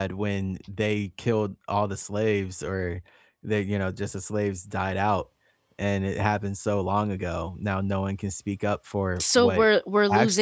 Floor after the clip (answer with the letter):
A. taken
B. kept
A